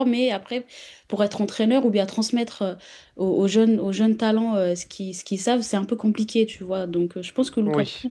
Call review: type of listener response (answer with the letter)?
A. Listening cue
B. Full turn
A